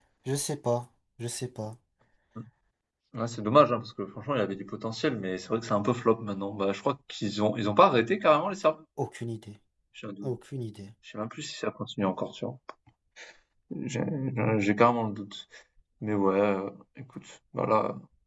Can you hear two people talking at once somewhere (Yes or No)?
No